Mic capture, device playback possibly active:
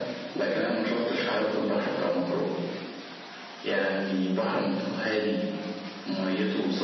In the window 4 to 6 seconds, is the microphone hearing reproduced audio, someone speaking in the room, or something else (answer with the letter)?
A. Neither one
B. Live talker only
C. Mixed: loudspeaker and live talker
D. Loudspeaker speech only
D